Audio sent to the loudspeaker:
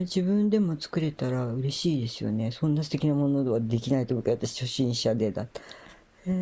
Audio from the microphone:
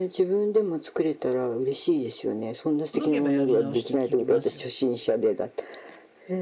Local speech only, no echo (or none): ほどけばやり直し聞きますよ。